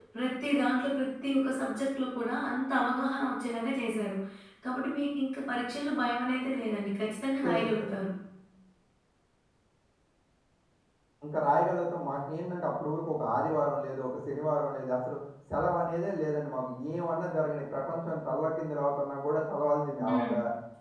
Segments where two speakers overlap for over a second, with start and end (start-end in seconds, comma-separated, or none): none